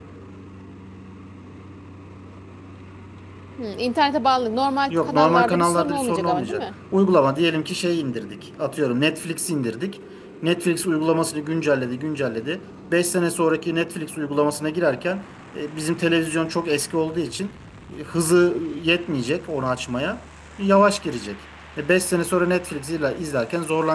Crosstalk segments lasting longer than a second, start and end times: 4.9-6.6

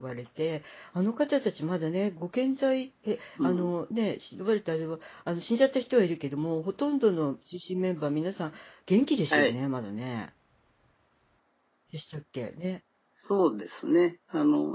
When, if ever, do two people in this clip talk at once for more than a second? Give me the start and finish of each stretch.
none

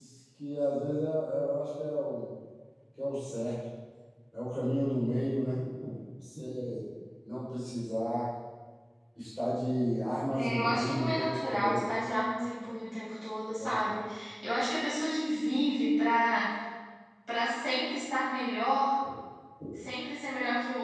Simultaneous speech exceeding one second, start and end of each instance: 10.3-11.9

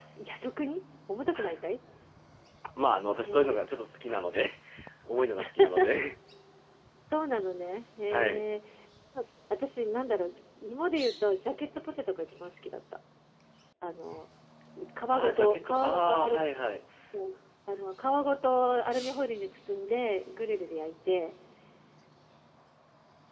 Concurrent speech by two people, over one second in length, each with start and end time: 15.1-16.4

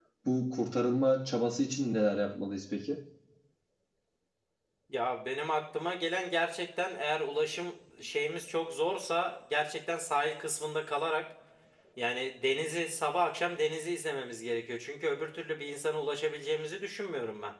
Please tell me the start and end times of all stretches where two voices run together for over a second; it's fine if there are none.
none

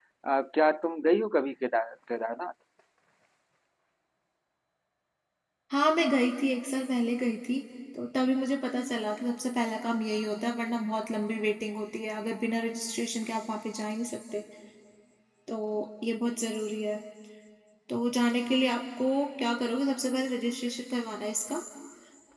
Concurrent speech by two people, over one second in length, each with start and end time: none

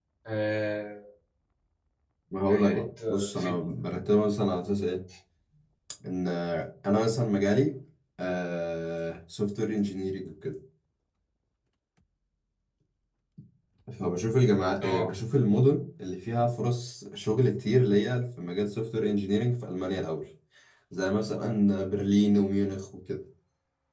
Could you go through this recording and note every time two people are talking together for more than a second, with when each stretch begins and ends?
2.5-3.7

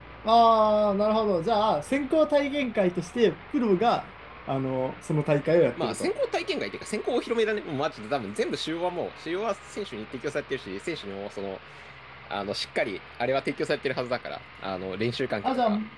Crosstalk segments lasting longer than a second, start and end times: none

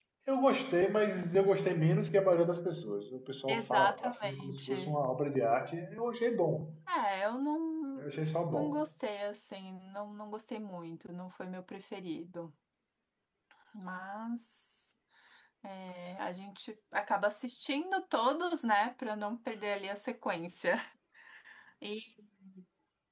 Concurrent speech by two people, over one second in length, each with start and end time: 3.5-4.9

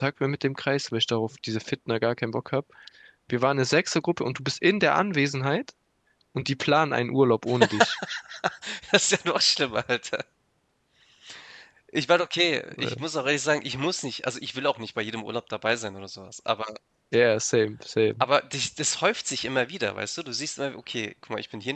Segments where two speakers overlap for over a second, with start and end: none

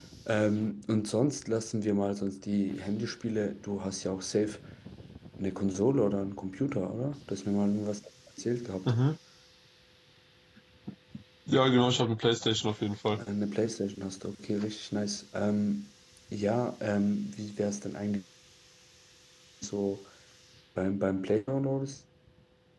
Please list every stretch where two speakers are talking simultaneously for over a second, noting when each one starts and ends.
none

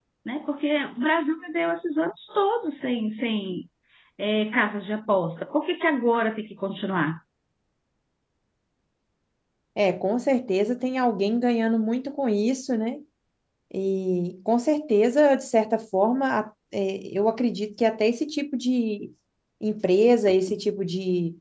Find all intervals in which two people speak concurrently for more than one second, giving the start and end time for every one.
none

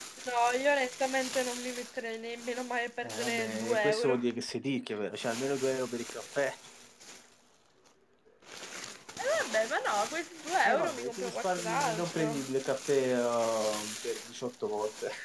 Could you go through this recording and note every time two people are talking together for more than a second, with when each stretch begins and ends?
3.0-4.2, 10.6-12.5

